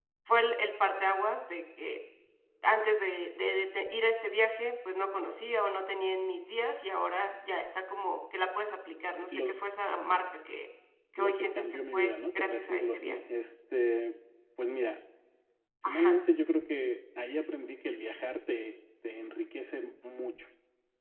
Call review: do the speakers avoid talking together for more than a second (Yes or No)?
No